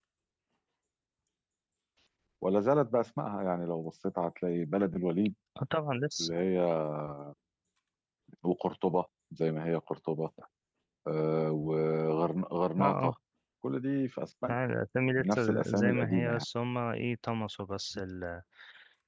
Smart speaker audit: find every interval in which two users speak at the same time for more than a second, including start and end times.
15.2-16.4

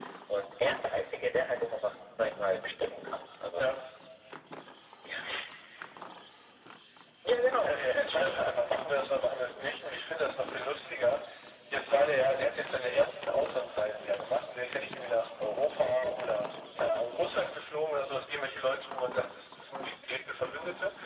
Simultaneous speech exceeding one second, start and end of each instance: none

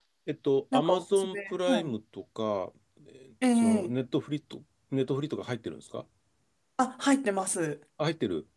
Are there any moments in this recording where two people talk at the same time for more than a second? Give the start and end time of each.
0.7-1.9

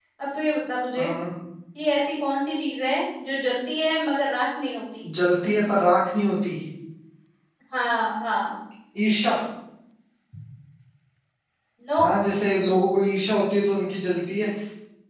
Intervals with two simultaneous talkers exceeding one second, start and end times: none

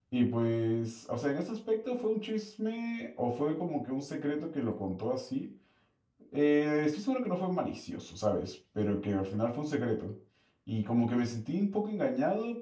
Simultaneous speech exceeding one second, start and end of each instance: none

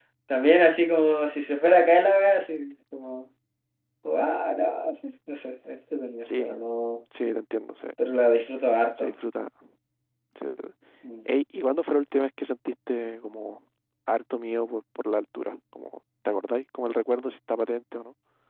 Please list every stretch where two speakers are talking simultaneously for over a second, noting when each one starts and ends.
none

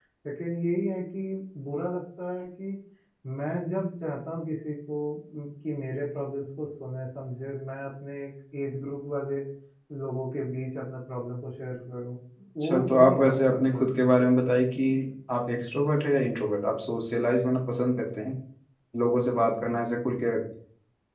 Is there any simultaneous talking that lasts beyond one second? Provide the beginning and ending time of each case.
12.6-13.8

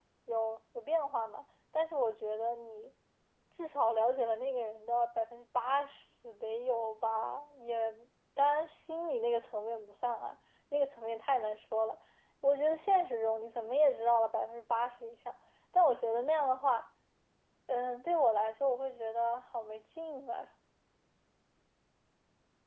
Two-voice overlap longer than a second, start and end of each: none

